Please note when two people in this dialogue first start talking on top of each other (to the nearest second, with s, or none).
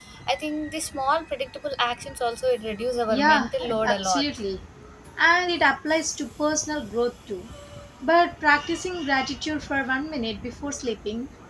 3 s